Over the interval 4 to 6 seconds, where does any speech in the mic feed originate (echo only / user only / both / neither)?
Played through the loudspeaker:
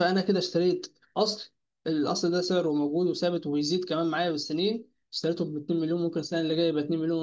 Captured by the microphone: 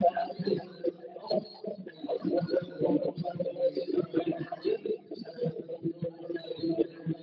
echo only